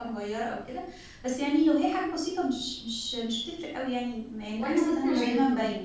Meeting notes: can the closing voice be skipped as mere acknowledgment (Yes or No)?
No